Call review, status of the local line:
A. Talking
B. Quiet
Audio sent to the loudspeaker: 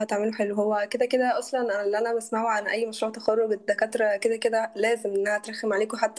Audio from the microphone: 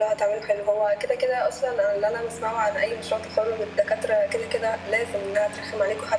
B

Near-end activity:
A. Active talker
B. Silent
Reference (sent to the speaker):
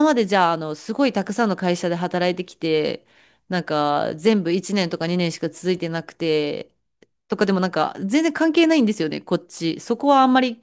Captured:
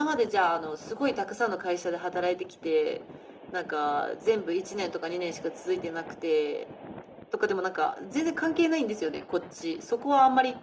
B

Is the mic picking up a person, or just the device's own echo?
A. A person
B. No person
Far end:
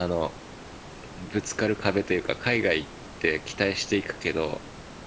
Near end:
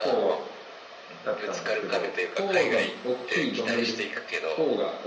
A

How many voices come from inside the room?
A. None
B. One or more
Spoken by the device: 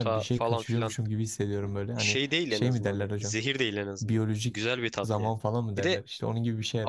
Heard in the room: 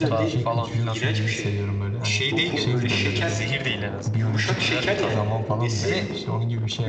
B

